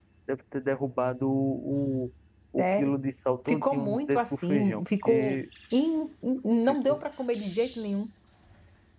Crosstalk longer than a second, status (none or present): present